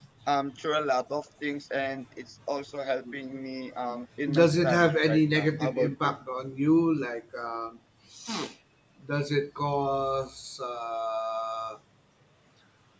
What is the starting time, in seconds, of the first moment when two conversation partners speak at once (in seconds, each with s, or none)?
4.2 s